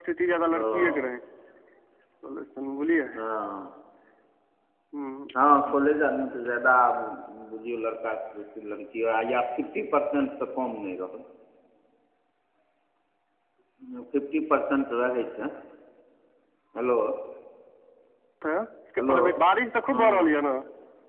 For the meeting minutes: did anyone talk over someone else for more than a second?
No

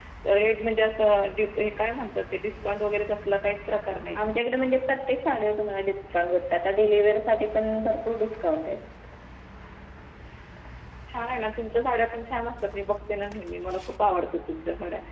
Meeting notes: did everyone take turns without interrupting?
Yes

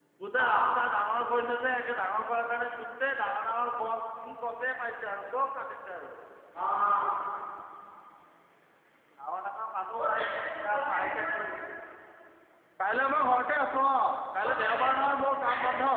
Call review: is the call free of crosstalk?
No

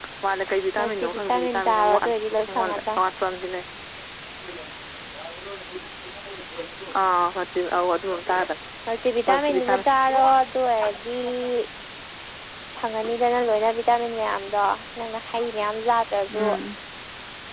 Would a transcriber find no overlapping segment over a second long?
No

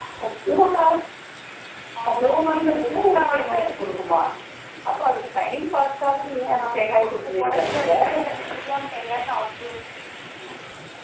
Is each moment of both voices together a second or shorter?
No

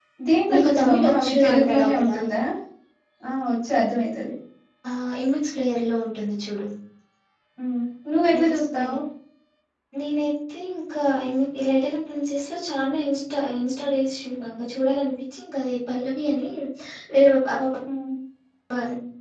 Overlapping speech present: Yes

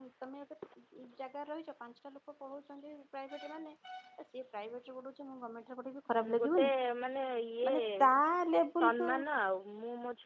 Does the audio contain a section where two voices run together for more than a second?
No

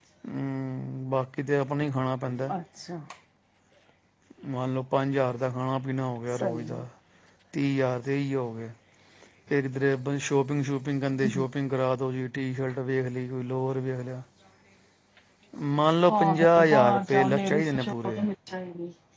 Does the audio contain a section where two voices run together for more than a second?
Yes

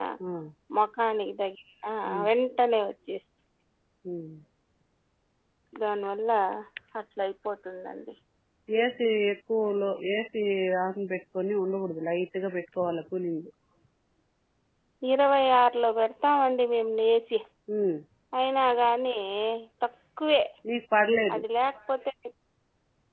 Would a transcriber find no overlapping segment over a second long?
Yes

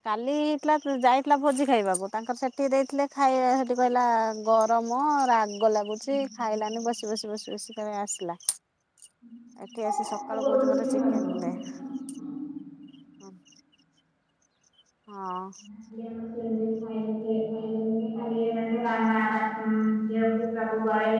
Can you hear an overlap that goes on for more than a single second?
Yes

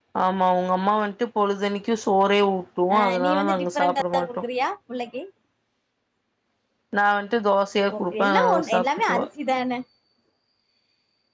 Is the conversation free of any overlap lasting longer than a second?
No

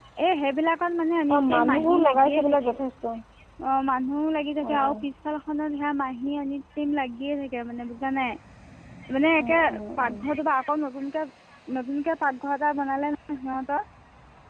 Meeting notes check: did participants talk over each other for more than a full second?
Yes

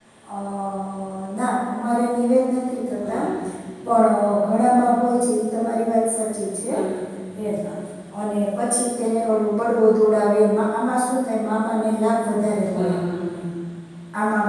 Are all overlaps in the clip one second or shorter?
Yes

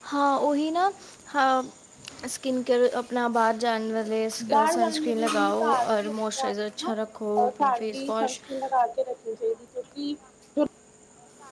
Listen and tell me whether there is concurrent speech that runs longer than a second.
Yes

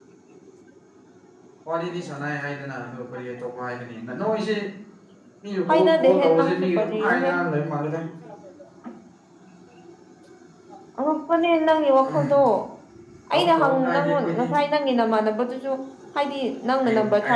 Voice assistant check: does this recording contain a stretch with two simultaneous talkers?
Yes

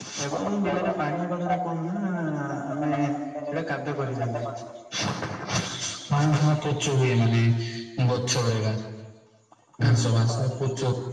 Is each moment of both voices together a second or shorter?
No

